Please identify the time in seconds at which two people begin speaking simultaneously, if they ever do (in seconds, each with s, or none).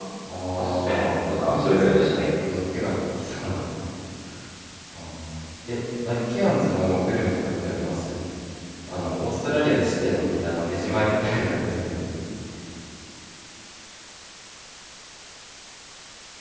0.6 s